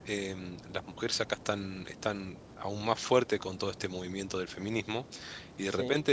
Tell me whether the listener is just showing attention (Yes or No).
Yes